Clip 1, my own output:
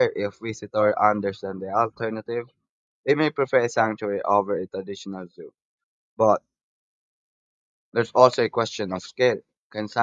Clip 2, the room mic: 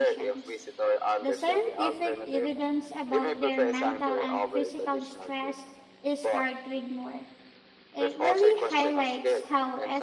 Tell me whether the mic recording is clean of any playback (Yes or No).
No